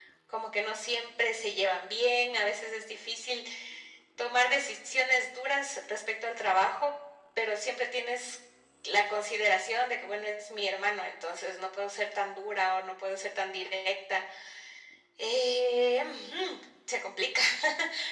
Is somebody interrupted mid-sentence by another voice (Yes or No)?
No